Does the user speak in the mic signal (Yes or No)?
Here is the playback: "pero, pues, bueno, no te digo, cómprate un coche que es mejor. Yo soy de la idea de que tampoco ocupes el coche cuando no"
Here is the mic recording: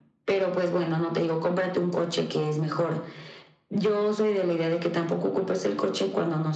No